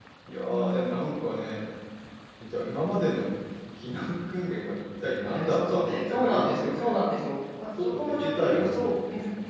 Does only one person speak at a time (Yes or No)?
No